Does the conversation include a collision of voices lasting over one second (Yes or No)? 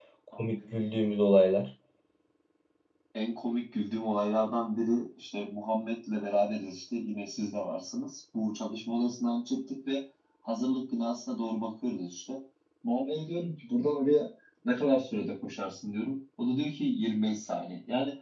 No